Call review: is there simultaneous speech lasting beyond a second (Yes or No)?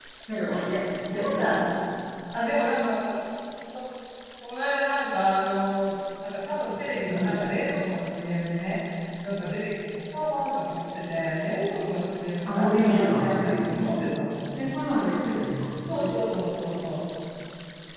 Yes